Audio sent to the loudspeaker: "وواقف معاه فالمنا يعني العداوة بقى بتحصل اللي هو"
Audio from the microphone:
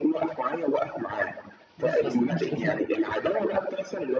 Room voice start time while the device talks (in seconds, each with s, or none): 1.8 s